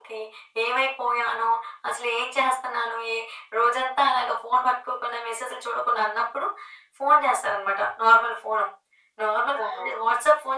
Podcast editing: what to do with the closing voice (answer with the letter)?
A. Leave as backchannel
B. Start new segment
A